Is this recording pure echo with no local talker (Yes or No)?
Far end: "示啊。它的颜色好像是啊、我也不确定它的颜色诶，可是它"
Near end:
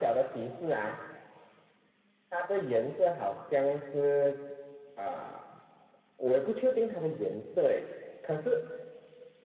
Yes